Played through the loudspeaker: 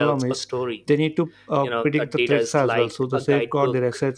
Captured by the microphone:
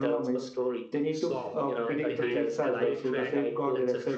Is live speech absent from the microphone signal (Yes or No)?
No